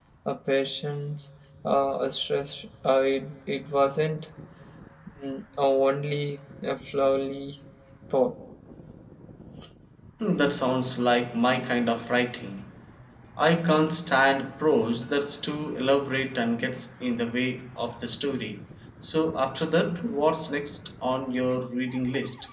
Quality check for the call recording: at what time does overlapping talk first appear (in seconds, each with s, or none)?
none